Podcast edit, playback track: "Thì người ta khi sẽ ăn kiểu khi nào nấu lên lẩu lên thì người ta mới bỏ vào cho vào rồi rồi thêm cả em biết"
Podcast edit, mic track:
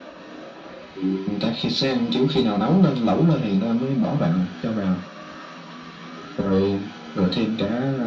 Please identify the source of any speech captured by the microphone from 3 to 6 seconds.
echo only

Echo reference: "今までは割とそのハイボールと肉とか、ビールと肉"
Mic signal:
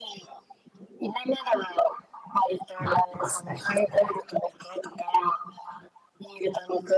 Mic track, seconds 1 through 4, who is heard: both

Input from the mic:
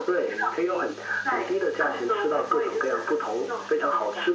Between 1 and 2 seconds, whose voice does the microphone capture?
echo only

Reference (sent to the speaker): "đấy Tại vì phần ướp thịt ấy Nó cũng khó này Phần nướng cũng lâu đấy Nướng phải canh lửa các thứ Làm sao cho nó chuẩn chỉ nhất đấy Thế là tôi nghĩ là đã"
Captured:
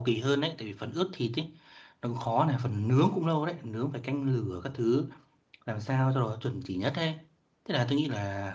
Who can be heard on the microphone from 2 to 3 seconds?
echo only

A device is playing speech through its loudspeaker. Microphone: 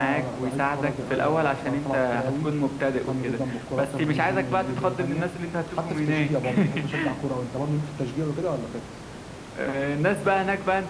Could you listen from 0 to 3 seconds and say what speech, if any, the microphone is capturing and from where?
echo only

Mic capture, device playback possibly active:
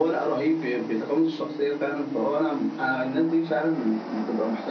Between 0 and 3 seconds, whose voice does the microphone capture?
echo only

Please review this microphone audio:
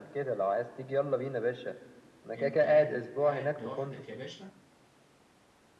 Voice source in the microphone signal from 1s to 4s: both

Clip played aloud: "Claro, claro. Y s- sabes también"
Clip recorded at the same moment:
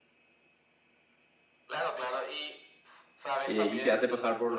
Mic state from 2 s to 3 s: echo only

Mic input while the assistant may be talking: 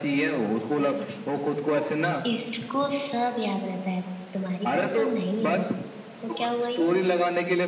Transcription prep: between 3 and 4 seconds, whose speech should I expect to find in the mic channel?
user only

